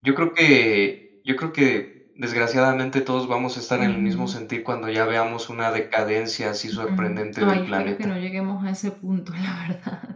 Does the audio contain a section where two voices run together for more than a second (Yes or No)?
Yes